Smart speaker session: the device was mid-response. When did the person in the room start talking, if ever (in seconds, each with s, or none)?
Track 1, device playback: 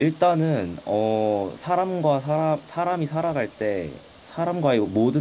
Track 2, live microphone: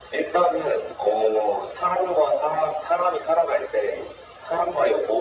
none